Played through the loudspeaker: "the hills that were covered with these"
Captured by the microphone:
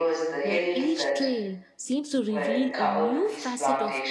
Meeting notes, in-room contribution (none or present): present